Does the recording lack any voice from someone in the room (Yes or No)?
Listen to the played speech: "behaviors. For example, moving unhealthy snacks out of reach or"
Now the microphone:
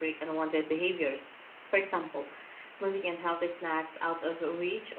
Yes